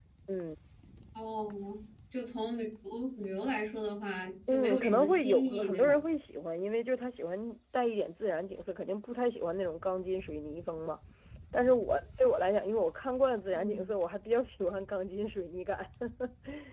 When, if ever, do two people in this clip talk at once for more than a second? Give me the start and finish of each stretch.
4.5-6.0

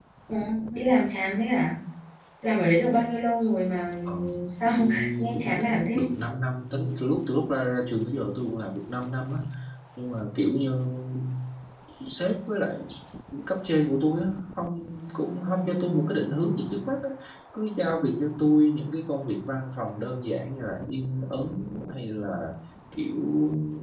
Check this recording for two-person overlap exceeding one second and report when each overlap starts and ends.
4.8-6.0

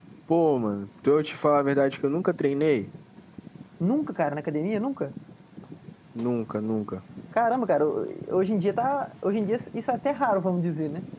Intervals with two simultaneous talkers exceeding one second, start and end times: none

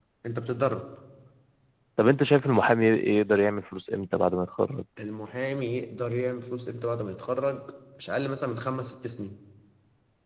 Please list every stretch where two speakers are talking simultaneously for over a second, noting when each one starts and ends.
none

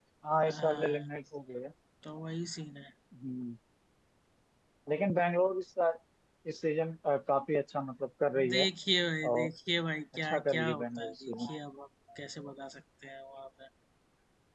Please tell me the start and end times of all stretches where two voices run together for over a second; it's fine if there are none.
10.2-11.5

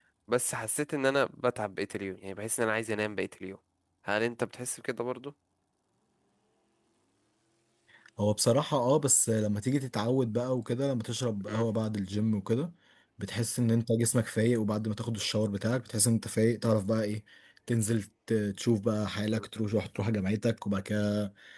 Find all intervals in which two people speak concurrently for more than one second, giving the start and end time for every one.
none

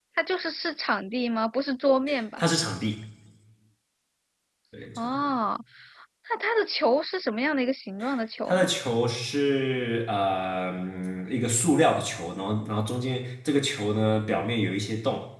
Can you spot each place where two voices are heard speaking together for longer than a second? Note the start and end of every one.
none

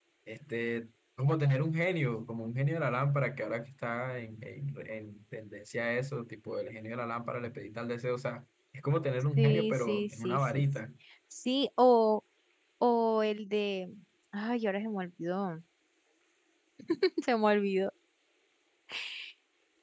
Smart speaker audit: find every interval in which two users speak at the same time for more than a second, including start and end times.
9.4-10.6

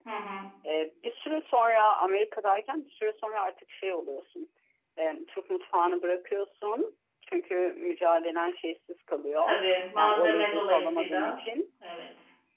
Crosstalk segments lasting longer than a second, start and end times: 10.0-11.4

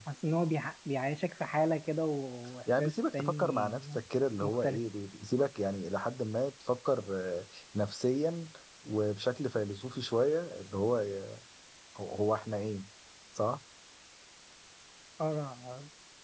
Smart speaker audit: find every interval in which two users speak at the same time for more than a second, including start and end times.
2.8-4.0

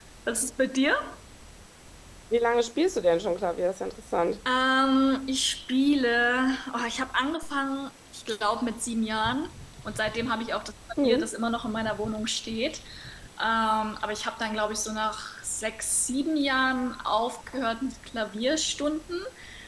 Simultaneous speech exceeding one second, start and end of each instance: none

